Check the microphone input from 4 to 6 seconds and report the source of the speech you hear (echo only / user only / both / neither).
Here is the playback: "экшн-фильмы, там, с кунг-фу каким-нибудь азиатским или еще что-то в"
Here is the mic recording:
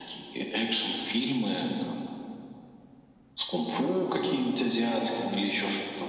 echo only